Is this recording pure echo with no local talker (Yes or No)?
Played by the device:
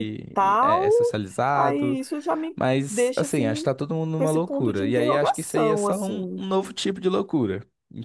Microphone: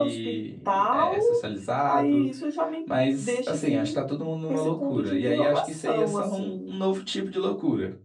Yes